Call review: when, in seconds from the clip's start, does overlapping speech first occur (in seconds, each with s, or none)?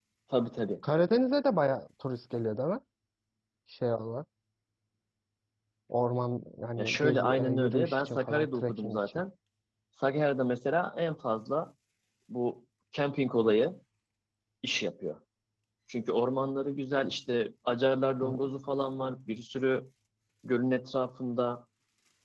6.8 s